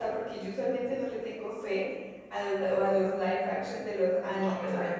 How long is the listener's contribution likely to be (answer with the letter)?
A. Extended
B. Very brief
A